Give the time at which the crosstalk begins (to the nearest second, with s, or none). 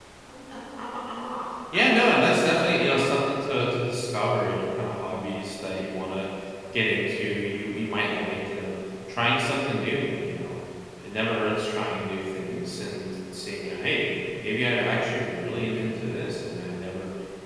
2 s